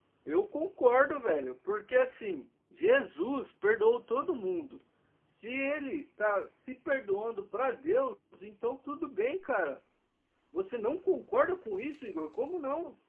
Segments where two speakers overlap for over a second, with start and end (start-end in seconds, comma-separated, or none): none